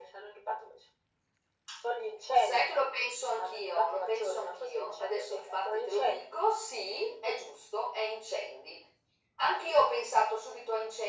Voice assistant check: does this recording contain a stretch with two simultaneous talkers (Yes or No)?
Yes